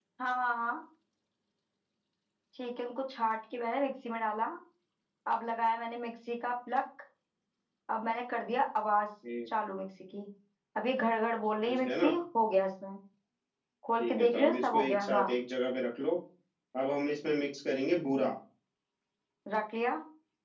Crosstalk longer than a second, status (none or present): present